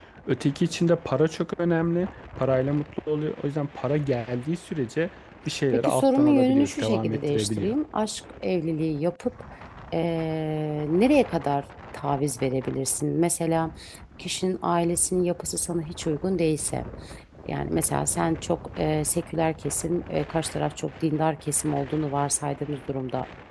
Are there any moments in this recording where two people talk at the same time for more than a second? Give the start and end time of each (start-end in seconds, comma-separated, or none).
5.7-7.8